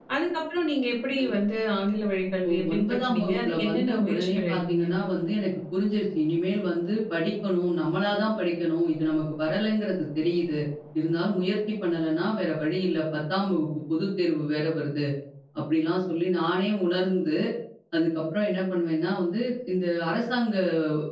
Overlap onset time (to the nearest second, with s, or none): 2 s